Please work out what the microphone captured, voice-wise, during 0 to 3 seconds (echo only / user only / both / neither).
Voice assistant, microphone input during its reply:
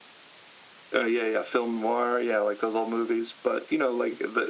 echo only